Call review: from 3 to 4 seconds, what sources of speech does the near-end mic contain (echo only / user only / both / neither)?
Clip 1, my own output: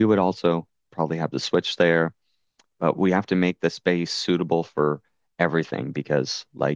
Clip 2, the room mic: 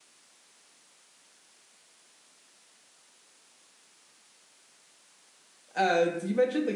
neither